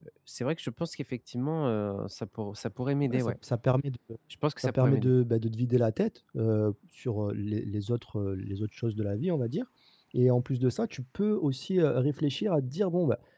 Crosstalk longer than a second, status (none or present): none